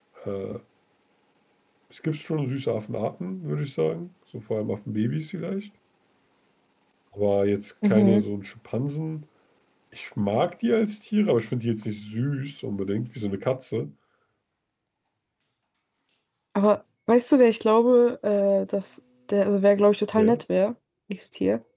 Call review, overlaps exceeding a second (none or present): none